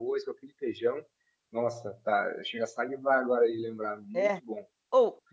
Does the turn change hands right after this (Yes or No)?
Yes